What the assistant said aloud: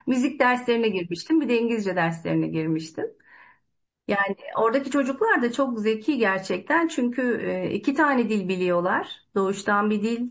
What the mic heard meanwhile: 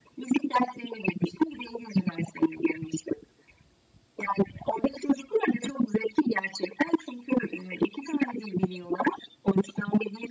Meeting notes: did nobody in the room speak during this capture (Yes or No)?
Yes